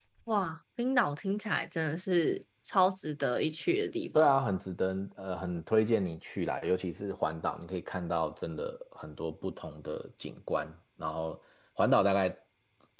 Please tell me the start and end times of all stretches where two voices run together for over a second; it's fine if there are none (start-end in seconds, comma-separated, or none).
none